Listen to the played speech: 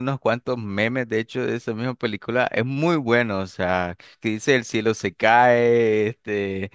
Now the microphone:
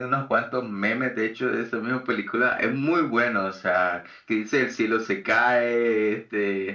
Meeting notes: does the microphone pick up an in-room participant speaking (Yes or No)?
No